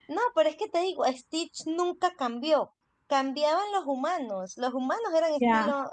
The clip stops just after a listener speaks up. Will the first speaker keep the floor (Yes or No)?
No